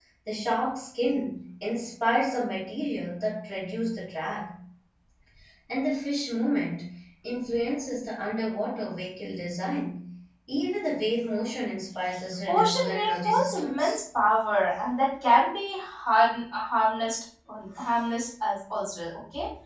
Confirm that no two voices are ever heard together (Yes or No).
No